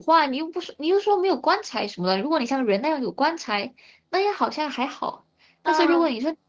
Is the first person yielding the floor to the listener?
No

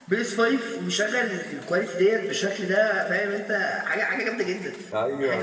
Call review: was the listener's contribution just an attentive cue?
No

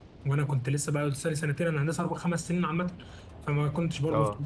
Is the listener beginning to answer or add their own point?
No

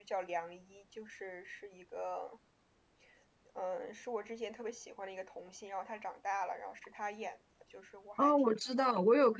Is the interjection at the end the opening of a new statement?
Yes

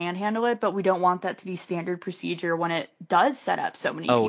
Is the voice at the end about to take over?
Yes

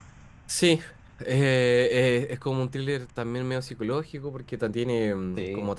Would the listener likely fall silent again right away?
Yes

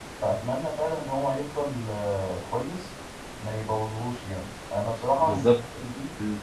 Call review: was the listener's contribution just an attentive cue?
Yes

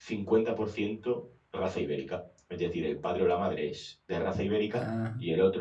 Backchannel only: Yes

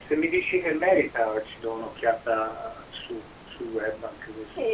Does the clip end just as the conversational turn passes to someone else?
Yes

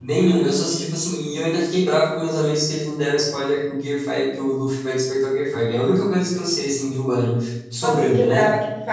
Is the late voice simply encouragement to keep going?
No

